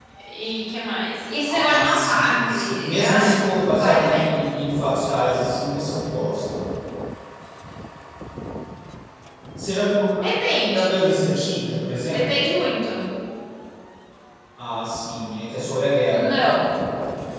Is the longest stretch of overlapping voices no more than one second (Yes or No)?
No